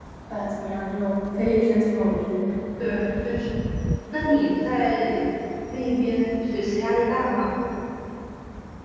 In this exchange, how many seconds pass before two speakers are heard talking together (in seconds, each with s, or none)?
none